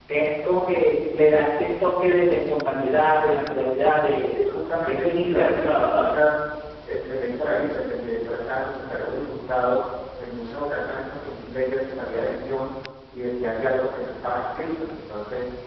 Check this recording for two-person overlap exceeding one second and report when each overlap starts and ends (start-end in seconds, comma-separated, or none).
4.8-6.1